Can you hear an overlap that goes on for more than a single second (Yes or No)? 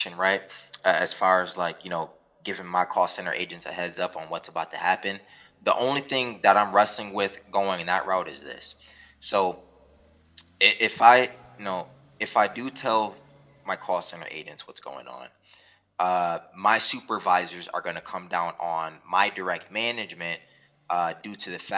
No